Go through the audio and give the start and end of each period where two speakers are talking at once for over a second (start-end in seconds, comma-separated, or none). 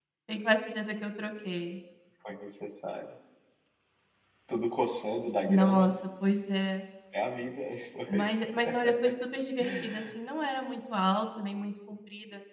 none